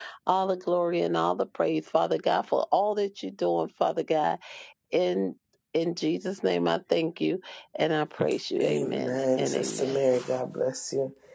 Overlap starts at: 8.6 s

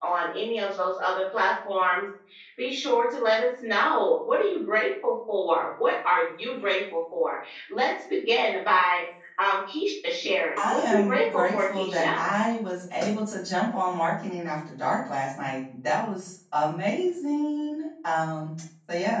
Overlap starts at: 10.6 s

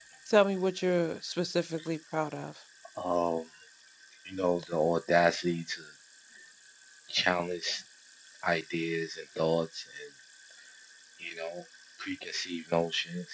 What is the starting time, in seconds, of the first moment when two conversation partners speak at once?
none

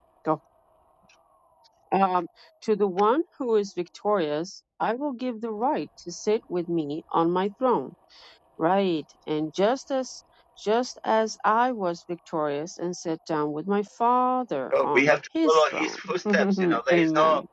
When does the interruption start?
14.6 s

